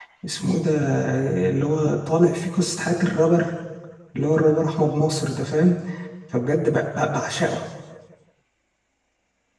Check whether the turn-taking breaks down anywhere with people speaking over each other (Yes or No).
No